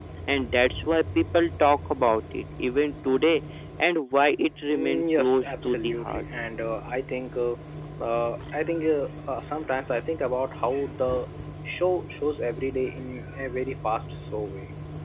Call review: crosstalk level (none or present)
present